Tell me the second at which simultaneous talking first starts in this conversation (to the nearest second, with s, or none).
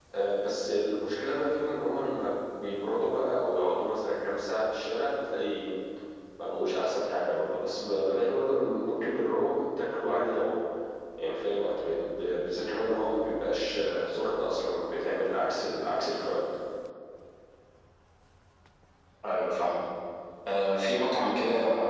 none